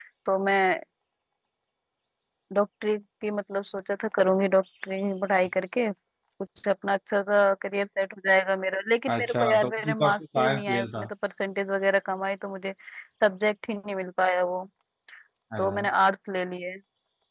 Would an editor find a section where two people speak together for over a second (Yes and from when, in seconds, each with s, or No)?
Yes, from 9.2 s